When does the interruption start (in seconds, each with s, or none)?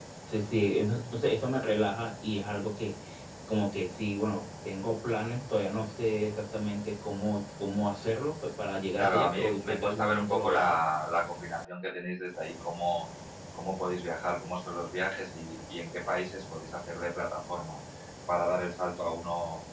9.0 s